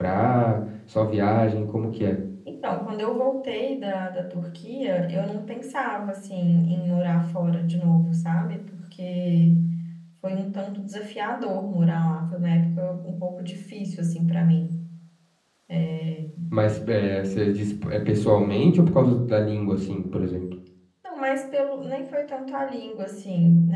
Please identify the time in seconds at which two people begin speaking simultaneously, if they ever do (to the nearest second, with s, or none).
none